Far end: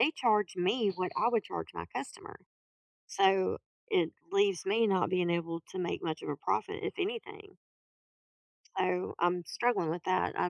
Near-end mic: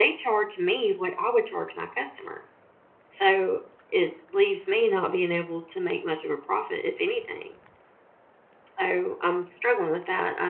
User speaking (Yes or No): No